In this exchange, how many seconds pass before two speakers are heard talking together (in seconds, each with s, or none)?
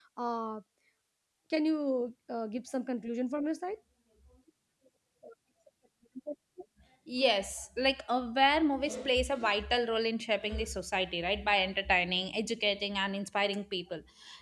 none